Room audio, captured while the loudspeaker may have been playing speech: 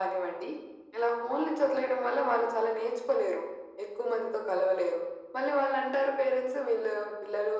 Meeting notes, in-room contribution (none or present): none